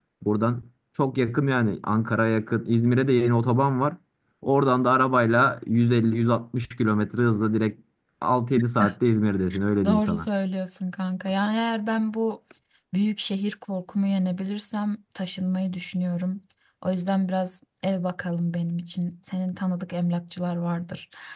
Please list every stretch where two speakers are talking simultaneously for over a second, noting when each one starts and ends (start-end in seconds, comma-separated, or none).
none